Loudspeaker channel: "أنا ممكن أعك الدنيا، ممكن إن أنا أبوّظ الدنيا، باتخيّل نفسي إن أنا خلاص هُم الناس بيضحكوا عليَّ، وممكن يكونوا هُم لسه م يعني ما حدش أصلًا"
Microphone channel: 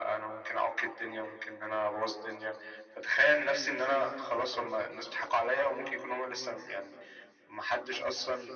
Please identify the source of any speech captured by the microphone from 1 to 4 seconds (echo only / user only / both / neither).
echo only